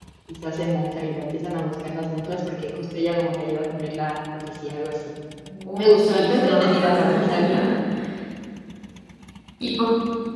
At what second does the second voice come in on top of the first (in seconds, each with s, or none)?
5.8 s